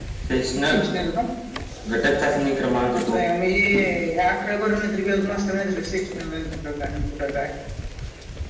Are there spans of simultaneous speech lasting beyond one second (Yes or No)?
No